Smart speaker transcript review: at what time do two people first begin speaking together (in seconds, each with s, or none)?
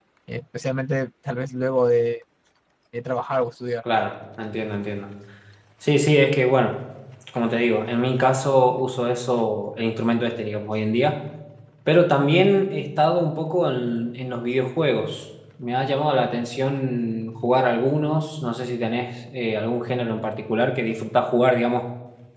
none